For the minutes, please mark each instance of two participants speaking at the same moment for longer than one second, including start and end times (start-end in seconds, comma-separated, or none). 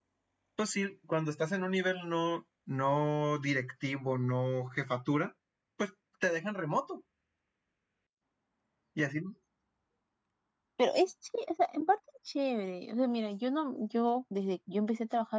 none